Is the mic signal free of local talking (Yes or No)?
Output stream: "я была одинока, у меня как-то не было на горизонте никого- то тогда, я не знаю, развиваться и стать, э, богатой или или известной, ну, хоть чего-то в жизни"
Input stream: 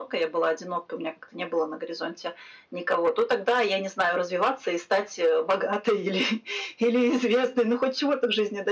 Yes